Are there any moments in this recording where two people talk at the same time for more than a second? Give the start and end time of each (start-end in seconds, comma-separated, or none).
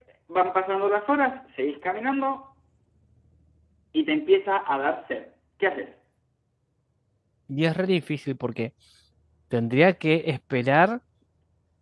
none